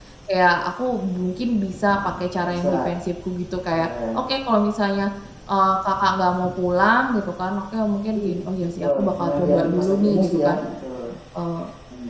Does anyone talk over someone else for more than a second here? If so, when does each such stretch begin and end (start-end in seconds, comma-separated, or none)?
8.8-10.6